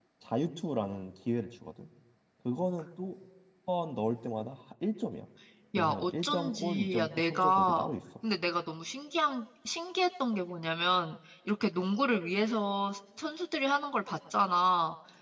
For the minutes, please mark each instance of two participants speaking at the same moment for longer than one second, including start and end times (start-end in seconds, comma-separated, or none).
5.8-7.8